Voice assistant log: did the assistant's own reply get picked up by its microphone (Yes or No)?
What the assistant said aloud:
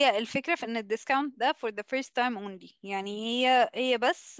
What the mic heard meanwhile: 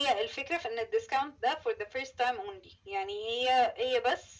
Yes